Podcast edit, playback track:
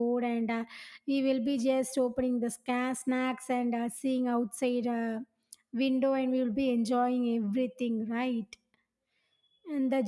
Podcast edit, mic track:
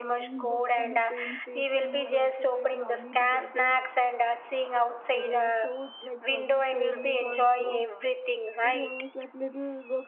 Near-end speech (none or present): present